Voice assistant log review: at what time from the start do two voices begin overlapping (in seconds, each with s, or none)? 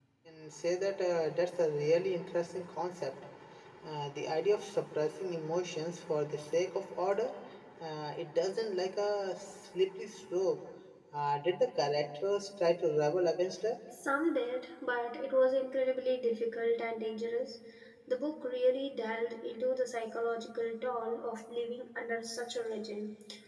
none